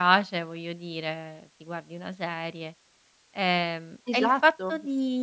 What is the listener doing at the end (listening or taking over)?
listening